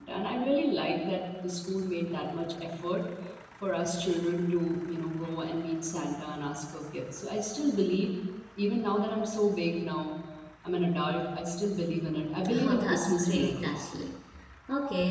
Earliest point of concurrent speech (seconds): 12.4 s

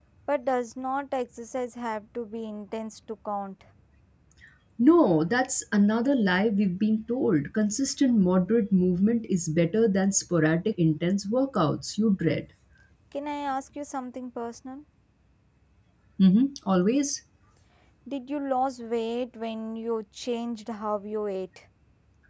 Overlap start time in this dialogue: none

